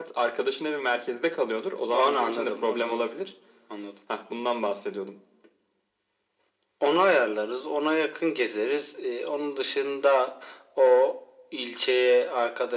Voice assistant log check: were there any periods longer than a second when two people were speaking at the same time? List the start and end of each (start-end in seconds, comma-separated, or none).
1.9-3.1